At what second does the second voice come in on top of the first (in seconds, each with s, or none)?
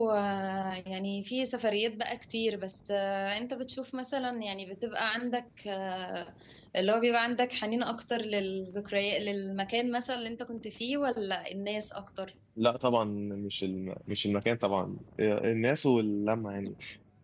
none